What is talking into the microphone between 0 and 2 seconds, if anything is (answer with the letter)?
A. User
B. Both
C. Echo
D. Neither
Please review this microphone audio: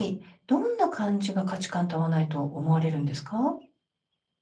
A